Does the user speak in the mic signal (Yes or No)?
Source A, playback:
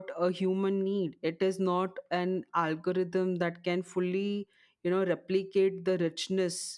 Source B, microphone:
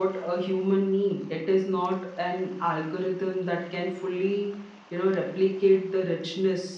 No